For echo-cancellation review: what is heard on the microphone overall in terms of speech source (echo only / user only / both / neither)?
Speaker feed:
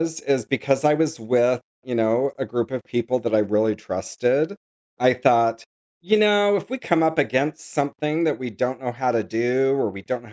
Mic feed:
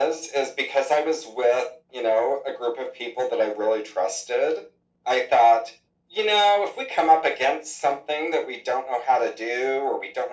echo only